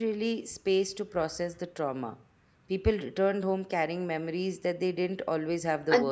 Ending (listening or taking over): taking over